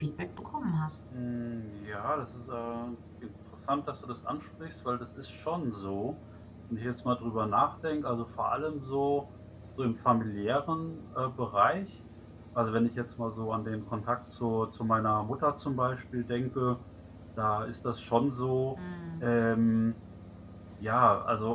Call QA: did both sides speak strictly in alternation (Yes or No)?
Yes